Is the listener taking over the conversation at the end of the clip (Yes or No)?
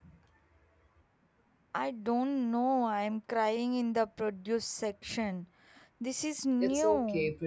Yes